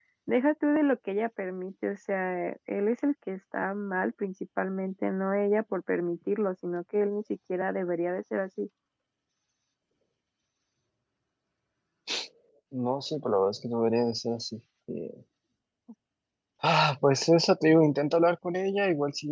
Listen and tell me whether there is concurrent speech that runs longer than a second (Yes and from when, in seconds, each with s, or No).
No